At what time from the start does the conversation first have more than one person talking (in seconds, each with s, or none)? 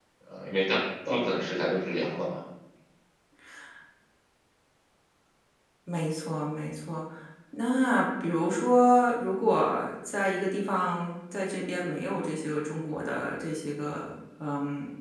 none